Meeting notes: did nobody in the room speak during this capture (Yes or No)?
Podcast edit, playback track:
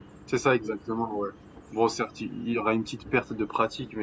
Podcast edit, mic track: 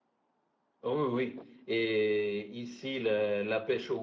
No